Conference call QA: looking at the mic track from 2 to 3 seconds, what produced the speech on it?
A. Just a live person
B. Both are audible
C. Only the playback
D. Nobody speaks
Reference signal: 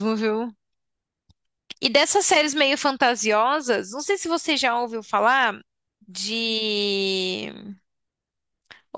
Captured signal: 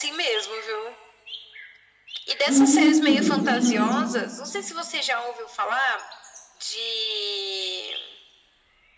B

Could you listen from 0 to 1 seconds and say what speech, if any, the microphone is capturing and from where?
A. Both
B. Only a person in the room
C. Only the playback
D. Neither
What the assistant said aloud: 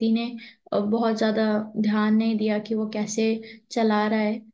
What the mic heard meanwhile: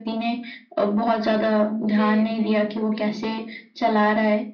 C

